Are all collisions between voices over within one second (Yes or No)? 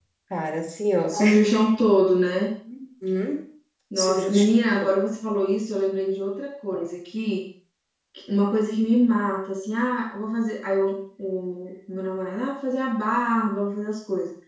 Yes